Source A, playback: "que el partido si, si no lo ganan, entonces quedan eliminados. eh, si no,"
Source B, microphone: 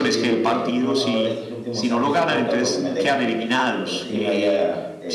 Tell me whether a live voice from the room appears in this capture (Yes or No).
Yes